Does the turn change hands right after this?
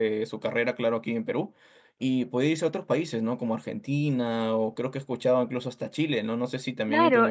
Yes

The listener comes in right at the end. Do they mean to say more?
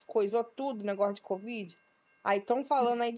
No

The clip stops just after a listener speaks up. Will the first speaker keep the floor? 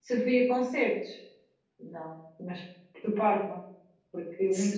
Yes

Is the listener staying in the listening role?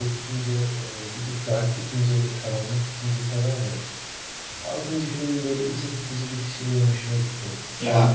No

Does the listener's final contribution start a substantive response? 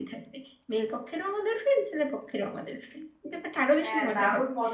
Yes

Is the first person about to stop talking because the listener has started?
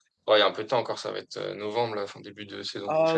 Yes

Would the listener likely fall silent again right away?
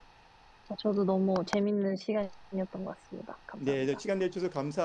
No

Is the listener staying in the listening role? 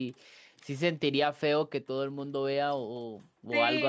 No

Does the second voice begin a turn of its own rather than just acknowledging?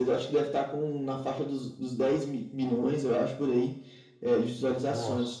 No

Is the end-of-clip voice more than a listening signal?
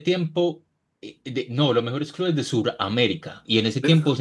No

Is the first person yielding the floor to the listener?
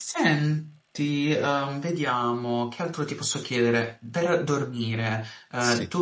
No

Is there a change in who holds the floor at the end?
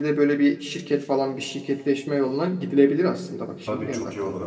Yes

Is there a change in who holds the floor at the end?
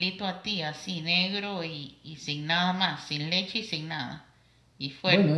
Yes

